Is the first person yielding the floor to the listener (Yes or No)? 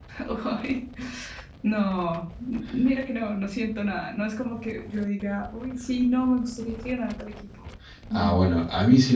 Yes